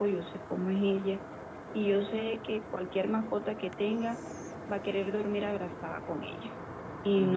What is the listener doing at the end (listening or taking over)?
listening